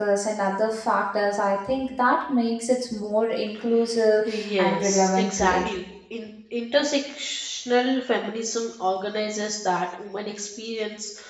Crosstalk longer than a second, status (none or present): present